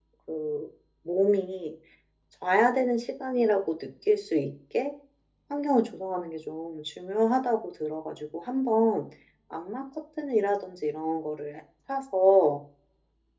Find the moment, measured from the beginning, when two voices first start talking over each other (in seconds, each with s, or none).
none